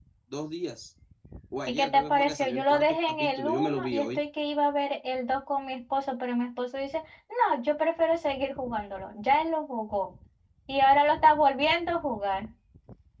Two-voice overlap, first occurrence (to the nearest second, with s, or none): 2 s